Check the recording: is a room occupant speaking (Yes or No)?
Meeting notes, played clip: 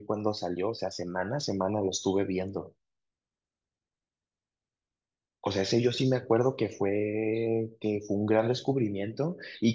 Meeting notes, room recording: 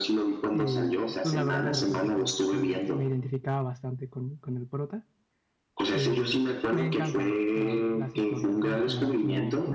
Yes